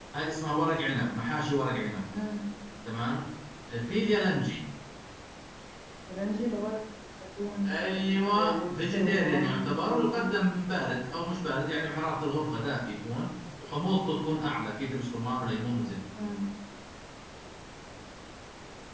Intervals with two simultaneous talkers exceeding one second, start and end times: 7.7-10.4

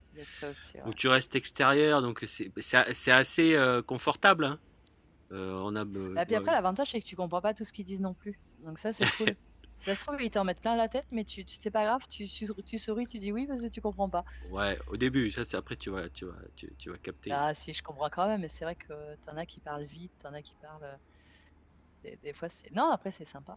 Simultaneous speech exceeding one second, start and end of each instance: none

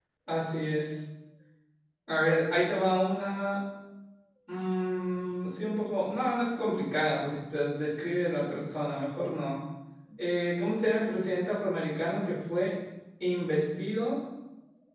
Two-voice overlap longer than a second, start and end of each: none

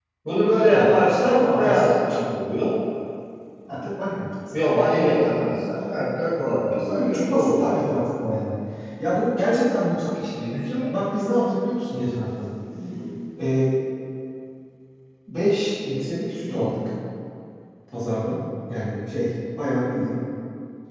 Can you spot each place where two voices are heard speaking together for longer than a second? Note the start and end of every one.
0.6-1.9, 6.7-8.2

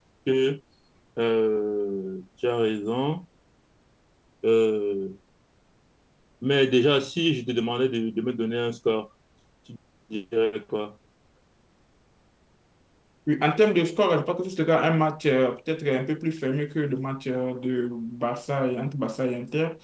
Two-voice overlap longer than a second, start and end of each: none

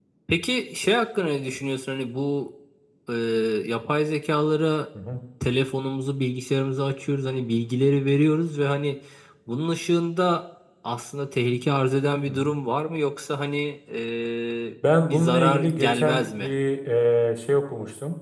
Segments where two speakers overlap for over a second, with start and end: 15.1-16.5

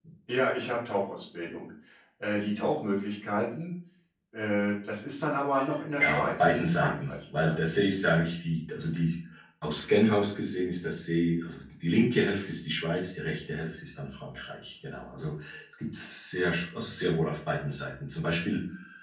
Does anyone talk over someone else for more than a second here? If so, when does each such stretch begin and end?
6.0-7.6

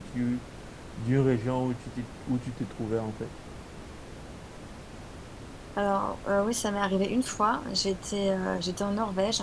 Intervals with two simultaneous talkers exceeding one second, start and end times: none

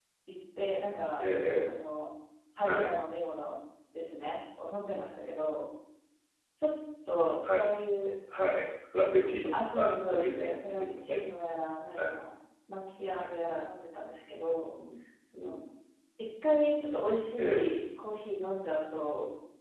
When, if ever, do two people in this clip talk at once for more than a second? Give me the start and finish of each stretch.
9.5-11.2

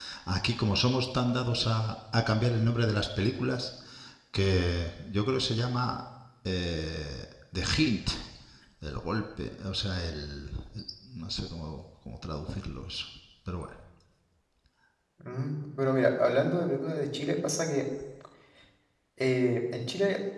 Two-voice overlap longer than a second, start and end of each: none

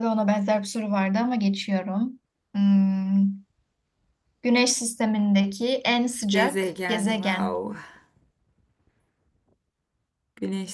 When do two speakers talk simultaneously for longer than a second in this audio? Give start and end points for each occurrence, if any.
6.3-7.6

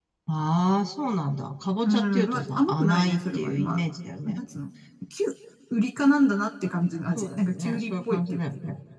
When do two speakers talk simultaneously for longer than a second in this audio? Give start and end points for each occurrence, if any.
1.8-3.8, 7.2-8.4

